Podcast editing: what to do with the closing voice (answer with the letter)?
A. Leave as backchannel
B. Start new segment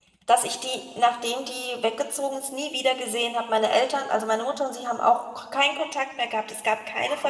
B